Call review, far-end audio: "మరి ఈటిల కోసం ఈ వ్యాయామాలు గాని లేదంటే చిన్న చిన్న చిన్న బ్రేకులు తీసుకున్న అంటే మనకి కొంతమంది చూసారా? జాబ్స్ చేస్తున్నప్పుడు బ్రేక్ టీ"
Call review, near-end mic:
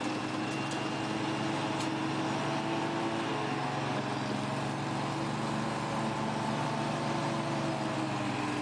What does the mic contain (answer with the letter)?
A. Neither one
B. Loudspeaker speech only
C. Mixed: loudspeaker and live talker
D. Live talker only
A